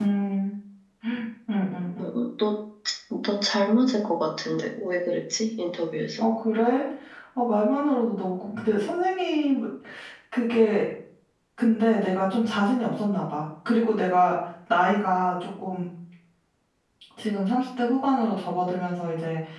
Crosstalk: none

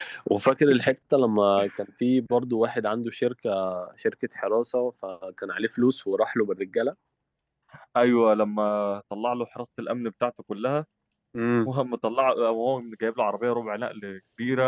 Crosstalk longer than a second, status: none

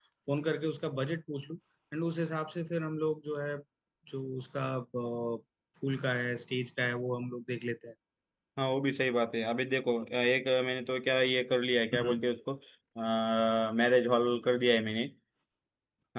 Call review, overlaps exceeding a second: none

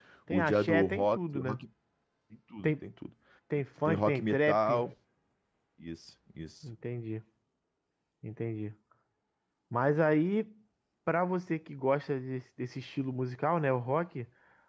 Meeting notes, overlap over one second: present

